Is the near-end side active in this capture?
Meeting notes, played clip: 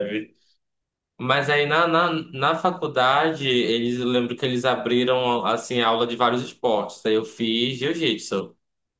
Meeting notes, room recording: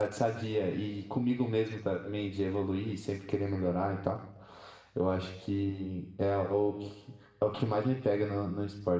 Yes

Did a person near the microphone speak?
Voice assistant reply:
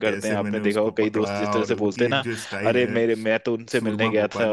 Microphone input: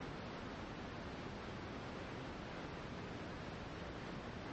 No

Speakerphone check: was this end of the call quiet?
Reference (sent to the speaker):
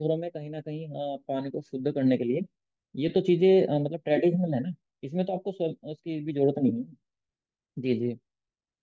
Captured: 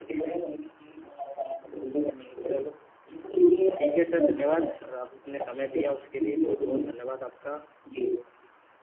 No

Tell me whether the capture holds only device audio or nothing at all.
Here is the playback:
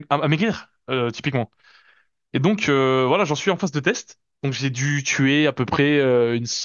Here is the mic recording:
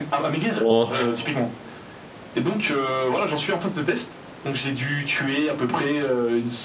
No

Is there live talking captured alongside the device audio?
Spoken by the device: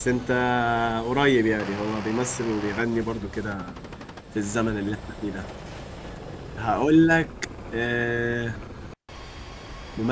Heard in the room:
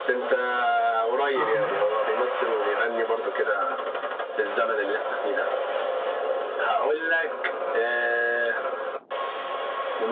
Yes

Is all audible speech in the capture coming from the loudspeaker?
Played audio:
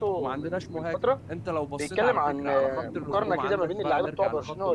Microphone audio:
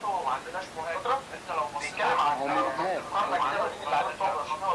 No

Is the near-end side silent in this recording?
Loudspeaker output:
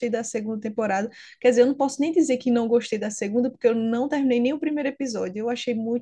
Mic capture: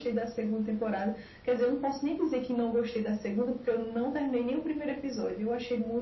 Yes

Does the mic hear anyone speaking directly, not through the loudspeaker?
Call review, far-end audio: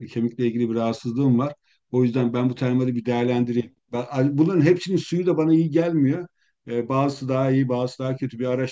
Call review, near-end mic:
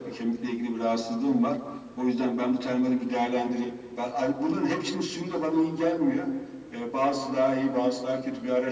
No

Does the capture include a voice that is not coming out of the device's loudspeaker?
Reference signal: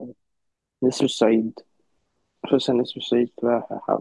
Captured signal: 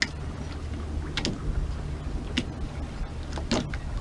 No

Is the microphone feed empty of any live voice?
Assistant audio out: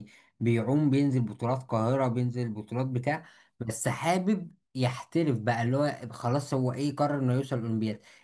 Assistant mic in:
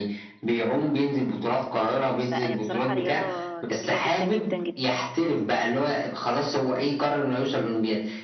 No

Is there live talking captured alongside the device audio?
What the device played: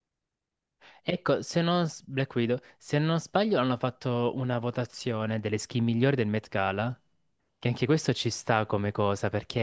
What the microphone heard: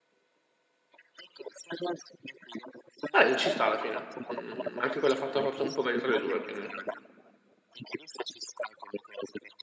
Yes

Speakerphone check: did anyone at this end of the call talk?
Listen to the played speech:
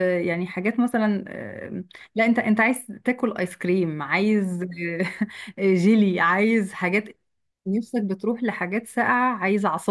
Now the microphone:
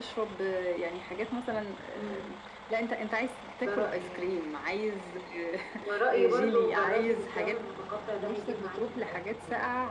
Yes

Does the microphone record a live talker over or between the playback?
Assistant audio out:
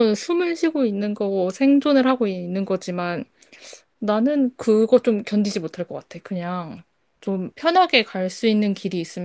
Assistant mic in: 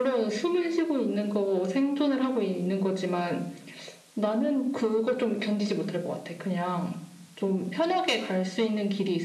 No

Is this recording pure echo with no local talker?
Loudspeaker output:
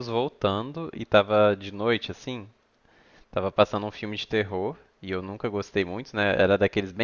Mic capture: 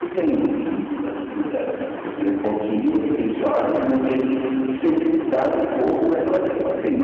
No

